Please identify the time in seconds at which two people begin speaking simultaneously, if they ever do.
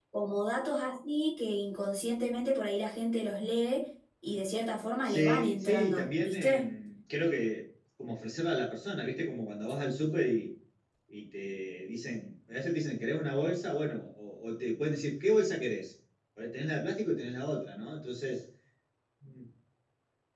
5.0 s

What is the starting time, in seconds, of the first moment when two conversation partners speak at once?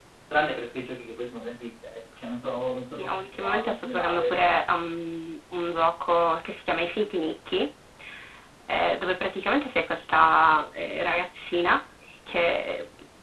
3.0 s

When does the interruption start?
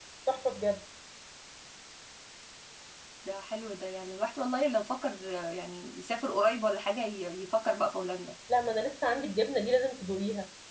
none

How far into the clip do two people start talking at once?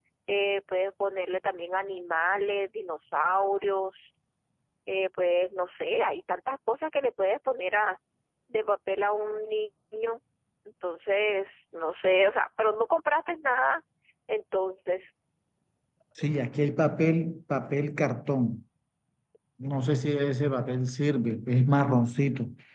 none

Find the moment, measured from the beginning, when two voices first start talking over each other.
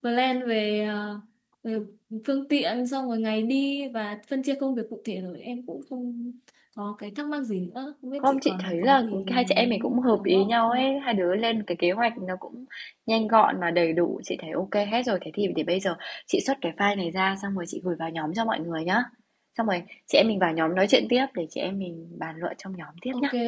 8.2 s

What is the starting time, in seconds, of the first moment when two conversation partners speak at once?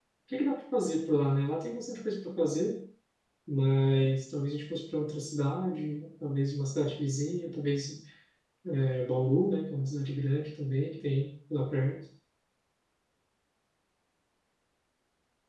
none

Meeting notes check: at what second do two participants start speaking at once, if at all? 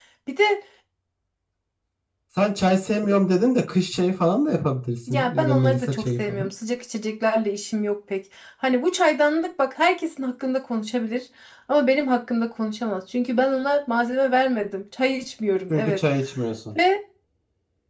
5.1 s

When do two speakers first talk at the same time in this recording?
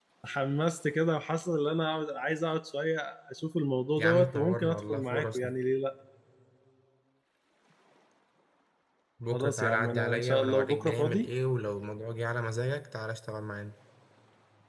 4.0 s

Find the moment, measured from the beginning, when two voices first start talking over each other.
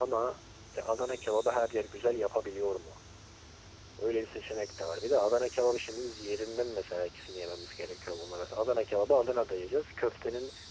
none

